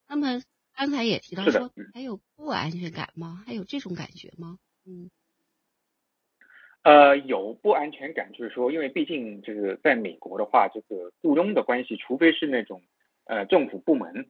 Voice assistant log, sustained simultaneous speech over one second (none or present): none